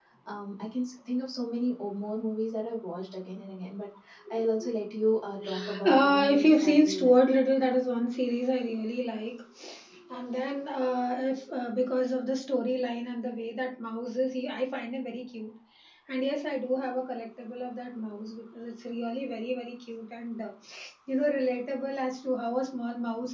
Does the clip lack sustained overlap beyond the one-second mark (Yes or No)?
No